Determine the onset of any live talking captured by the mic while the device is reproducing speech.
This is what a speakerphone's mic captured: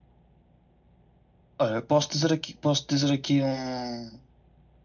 1.6 s

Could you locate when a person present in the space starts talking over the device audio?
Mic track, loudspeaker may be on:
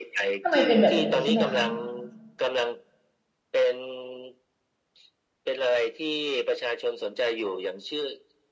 0.4 s

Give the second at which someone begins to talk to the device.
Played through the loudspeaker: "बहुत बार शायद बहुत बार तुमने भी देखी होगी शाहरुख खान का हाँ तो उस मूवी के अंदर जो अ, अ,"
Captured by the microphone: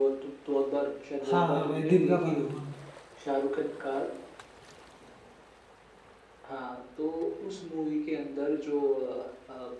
1.3 s

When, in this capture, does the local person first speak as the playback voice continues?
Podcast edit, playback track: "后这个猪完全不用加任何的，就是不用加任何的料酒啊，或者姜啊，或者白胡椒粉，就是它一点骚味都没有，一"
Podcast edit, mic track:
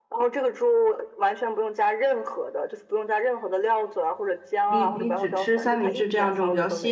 4.6 s

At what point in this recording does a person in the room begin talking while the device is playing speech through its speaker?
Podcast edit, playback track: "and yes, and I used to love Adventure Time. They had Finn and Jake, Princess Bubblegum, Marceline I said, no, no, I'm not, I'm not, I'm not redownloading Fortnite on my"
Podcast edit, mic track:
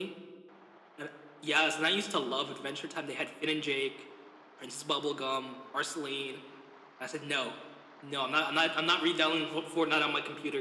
none

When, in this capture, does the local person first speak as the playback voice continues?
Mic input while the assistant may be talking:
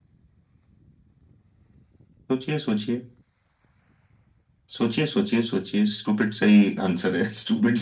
none

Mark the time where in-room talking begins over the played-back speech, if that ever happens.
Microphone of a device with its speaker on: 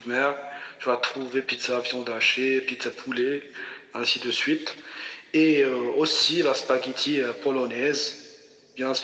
none

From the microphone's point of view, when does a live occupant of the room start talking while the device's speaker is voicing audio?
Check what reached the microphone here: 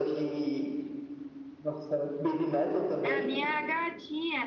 3.0 s

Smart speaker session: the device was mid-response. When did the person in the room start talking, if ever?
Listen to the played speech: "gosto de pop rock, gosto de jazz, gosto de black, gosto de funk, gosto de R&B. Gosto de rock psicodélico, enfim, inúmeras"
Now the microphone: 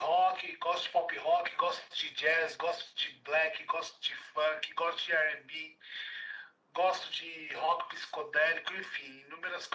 none

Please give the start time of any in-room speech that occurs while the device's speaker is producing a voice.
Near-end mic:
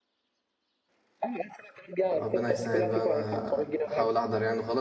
2.1 s

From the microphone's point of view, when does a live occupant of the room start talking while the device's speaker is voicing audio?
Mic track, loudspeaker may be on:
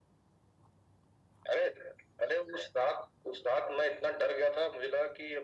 none

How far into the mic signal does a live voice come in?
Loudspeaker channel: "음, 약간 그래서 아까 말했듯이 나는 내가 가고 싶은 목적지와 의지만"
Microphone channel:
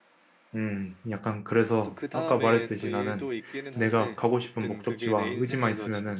1.8 s

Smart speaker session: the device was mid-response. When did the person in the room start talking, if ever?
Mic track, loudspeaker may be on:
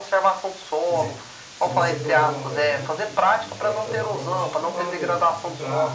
0.9 s

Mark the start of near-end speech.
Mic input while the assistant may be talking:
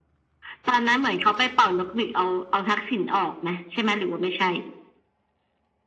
none

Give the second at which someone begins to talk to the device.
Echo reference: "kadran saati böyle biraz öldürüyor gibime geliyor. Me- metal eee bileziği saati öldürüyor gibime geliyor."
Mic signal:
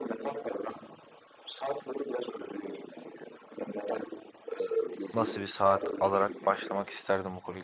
5.1 s

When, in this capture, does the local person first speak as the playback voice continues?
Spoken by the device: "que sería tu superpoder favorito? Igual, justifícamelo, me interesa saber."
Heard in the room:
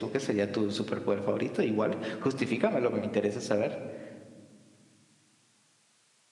none

